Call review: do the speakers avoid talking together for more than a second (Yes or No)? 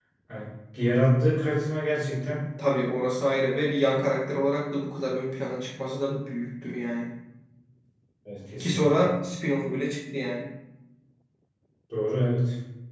Yes